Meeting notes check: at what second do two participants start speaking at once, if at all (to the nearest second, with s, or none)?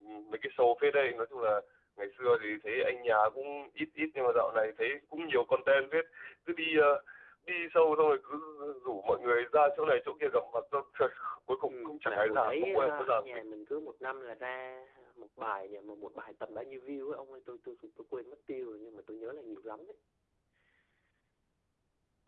12 s